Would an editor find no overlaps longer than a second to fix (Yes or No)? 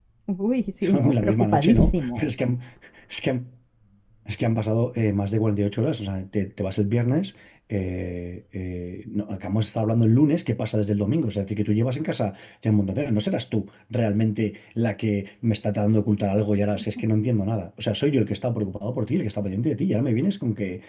No